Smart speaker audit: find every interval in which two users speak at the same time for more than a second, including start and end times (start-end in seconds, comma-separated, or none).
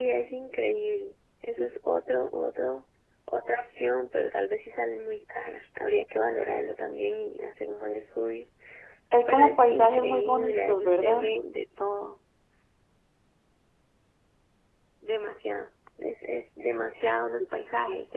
9.3-11.2